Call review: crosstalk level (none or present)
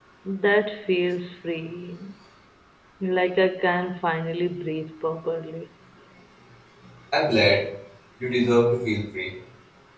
none